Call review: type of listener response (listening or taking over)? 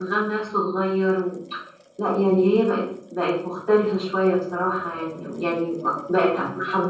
listening